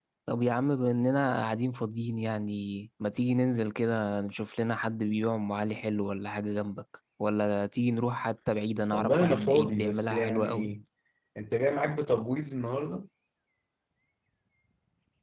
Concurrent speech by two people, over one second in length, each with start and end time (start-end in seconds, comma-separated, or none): 8.9-10.7